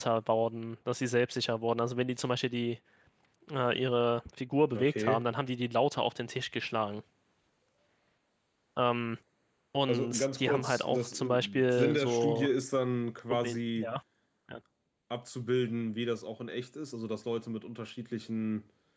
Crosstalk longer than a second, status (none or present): present